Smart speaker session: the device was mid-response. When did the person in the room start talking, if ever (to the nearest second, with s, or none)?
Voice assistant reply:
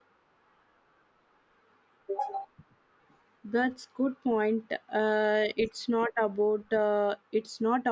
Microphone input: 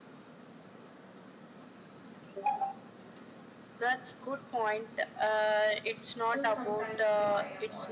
6 s